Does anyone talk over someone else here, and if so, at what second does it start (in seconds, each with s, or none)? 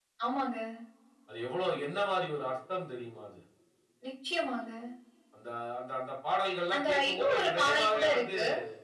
6.7 s